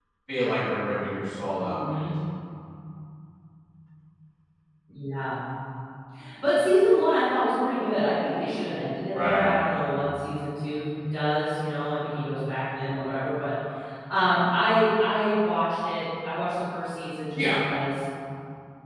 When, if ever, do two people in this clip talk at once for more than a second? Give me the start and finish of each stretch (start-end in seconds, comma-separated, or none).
none